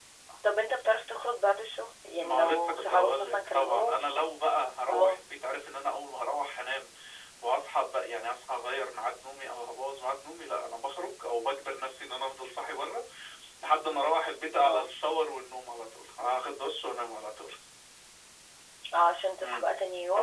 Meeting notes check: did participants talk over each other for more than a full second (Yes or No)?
Yes